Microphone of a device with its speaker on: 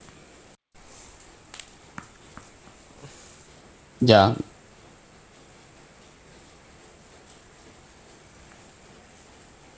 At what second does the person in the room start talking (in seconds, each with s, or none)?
4.0 s